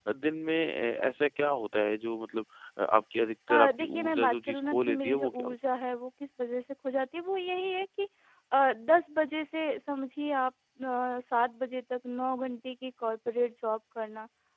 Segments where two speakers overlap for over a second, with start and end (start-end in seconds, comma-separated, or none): 3.5-5.5